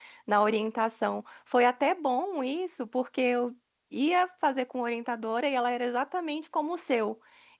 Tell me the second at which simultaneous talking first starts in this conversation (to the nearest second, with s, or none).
none